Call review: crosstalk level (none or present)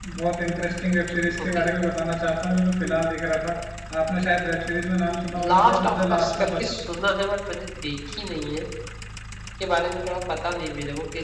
present